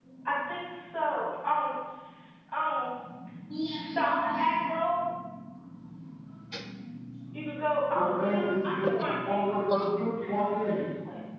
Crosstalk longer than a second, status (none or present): present